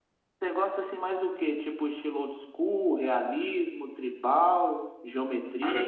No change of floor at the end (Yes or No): Yes